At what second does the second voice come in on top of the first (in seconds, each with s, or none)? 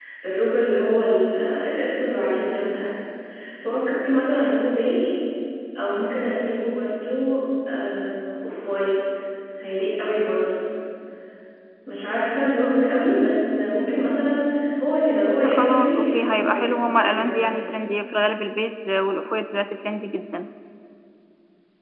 15.5 s